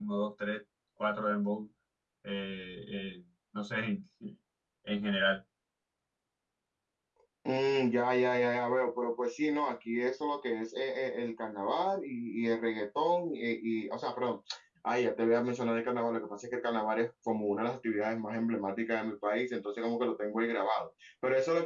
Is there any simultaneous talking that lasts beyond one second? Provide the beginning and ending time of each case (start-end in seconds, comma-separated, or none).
none